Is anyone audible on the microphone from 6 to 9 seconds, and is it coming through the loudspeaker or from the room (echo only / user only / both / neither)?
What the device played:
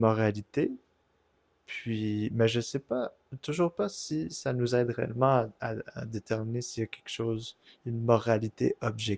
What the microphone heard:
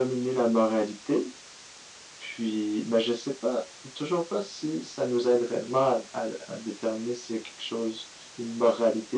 echo only